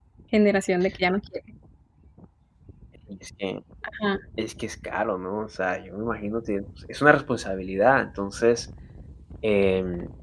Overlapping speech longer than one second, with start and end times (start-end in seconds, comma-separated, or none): none